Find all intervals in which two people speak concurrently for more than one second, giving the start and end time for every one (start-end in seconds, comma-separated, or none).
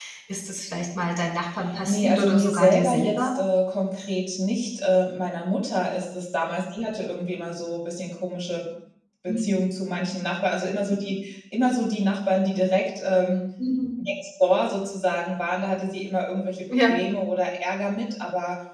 1.9-3.4